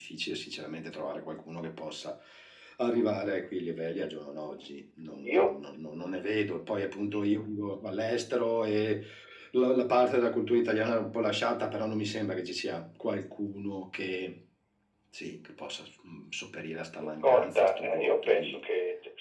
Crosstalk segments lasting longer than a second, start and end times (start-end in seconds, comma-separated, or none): 17.2-18.6